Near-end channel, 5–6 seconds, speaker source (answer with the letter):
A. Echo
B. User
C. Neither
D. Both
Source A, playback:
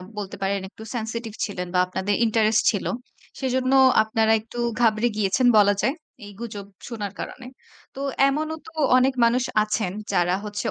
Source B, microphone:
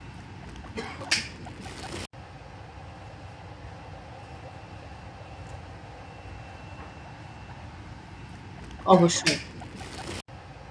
C